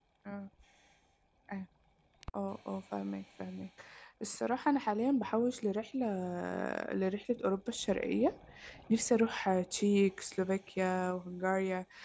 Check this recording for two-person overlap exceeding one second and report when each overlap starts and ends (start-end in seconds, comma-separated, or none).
none